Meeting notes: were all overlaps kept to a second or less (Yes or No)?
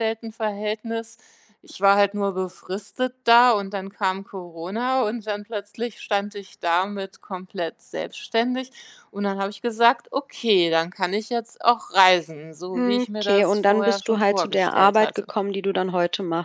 No